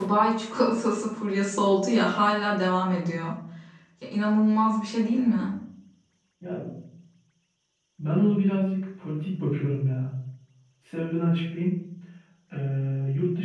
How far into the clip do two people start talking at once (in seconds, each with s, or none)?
none